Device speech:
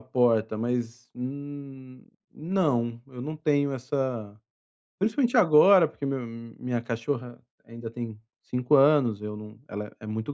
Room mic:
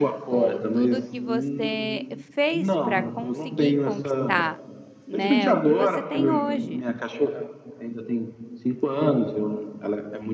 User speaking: Yes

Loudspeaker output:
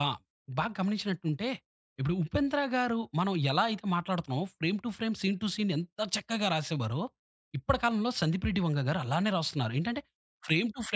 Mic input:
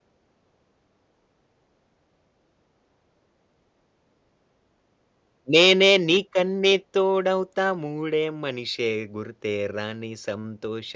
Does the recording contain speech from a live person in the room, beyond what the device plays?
Yes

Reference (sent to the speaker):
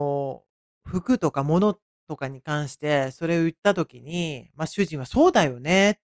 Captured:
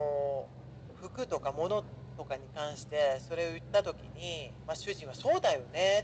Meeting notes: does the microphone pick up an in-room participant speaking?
No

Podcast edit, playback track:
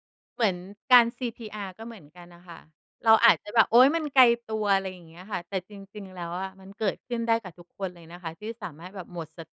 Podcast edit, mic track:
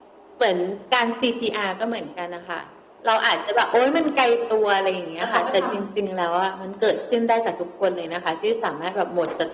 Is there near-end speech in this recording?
Yes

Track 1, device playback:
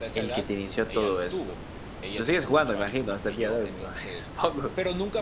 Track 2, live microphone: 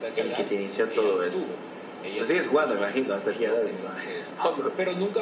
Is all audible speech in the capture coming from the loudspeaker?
Yes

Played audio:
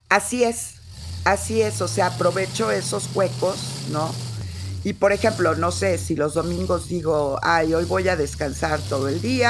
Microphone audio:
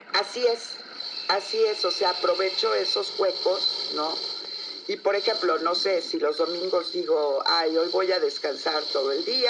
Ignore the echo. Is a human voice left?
No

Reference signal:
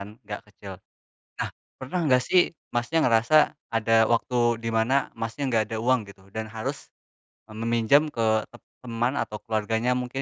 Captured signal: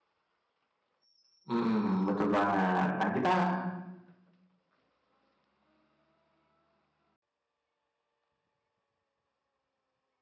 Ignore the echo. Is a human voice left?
Yes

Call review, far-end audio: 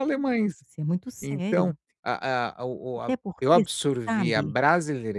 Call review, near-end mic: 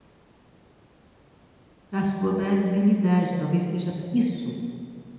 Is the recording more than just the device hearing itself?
Yes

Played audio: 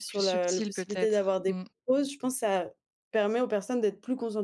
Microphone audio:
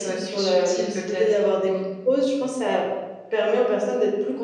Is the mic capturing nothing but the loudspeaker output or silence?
Yes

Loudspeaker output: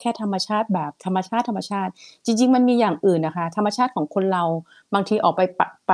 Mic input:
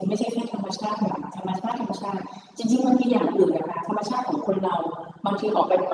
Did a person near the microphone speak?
No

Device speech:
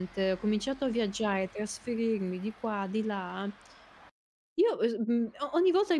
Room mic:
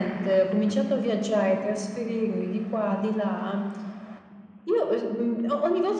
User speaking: No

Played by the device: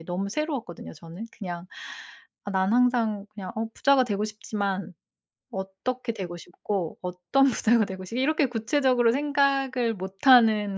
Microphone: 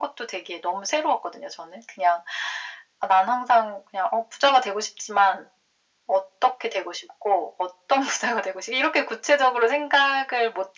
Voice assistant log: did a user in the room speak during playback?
No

